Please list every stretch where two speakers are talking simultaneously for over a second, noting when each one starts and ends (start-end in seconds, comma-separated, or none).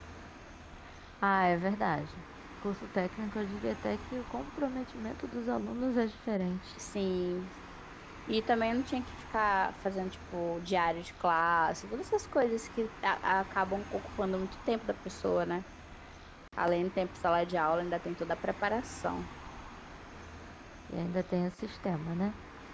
none